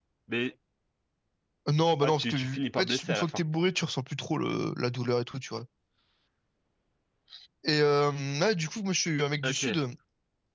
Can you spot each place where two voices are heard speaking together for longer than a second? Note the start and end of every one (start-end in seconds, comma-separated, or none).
2.0-3.4